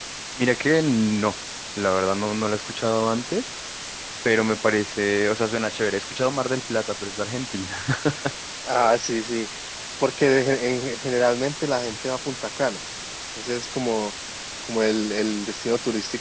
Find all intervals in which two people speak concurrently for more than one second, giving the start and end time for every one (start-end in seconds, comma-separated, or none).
none